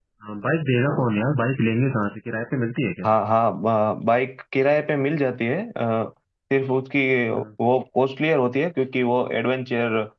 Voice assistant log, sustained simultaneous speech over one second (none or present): none